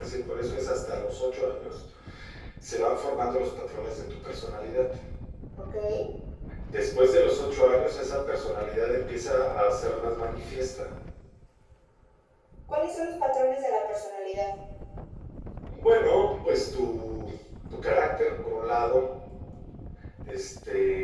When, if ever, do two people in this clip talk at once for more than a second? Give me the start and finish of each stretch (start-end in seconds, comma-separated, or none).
none